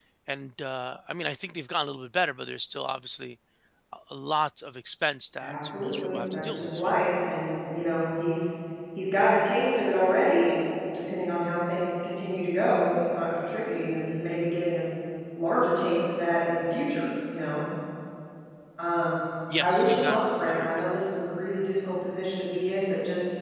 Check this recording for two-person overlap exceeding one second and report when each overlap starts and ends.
5.4-7.0, 19.6-20.8

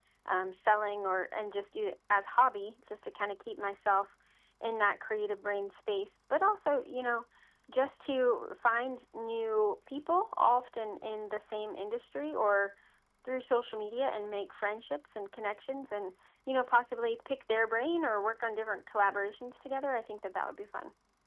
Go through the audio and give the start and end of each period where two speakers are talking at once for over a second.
none

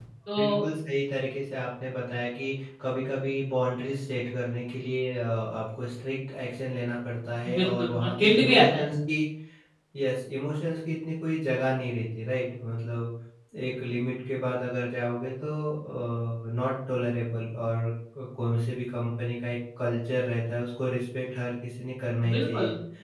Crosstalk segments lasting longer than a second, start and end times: 7.6-8.8

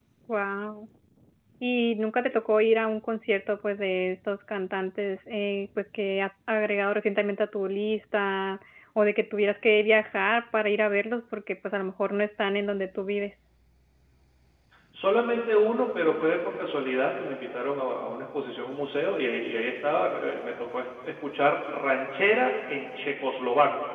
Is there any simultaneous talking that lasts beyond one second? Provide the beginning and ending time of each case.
none

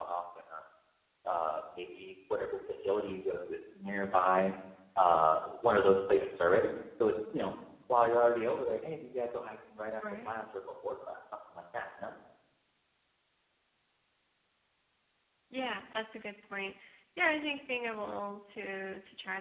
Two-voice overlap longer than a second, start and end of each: none

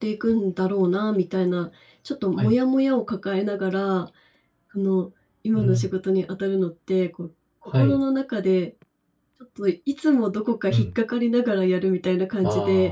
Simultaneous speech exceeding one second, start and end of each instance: none

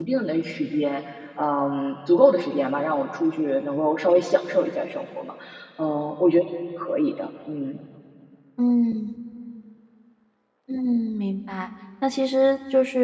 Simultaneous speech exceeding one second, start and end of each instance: none

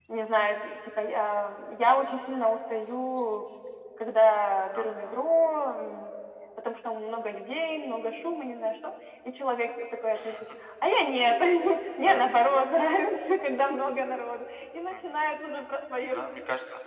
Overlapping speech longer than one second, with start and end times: none

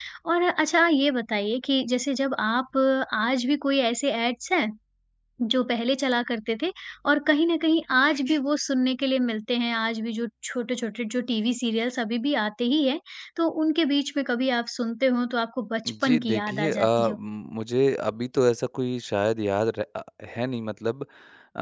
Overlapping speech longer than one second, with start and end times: 15.9-17.2

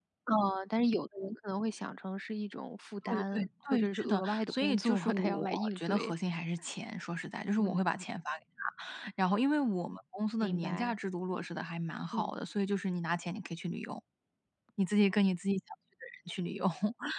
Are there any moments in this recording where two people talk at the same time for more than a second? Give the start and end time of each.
3.8-6.1

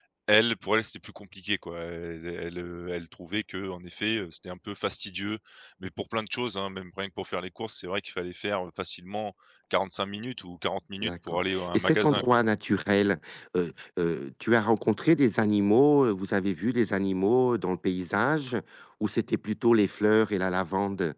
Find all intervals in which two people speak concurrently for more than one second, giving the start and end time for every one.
11.0-12.2

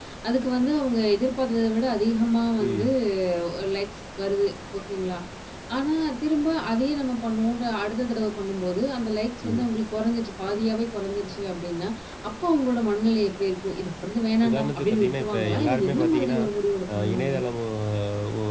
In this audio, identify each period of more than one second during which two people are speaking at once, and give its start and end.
14.5-16.4

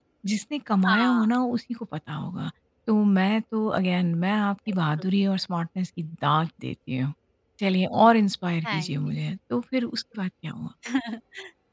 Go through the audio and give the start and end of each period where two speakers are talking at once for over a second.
none

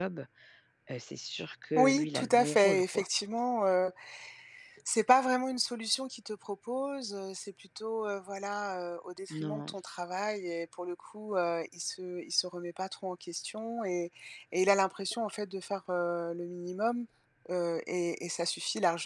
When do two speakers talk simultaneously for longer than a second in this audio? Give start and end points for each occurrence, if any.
1.8-3.1

